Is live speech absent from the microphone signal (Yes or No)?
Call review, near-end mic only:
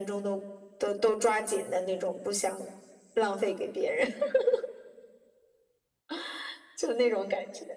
Yes